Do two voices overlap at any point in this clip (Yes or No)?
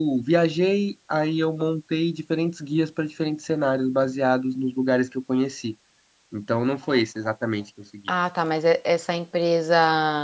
No